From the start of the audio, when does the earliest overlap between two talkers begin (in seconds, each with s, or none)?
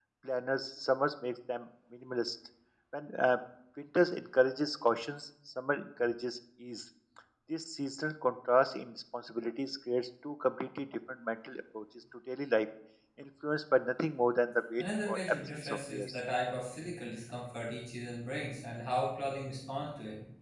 14.8 s